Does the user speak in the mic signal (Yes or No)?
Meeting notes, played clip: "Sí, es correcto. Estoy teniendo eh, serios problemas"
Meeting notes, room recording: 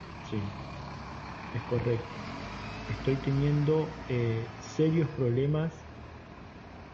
No